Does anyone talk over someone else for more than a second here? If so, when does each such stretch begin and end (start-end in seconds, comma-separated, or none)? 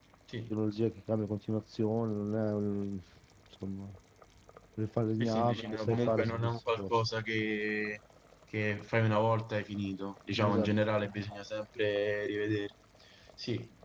5.2-6.9